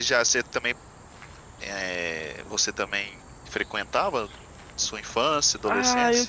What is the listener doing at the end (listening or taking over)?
taking over